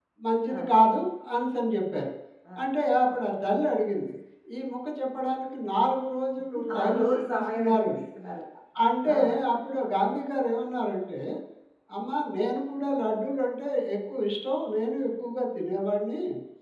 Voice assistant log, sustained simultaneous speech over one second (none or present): present